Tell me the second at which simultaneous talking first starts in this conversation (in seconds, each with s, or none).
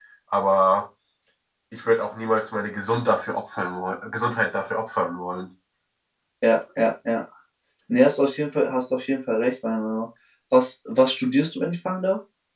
none